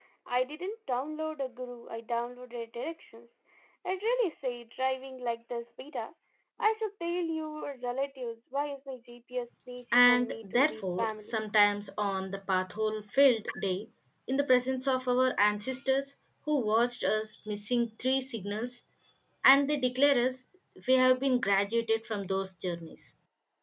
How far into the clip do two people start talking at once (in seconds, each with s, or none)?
9.9 s